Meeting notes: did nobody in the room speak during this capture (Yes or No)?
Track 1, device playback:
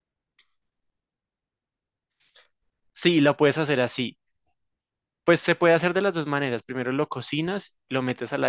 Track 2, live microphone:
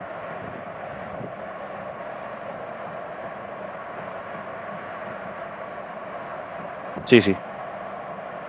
No